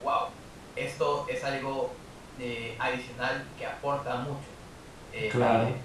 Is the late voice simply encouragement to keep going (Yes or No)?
Yes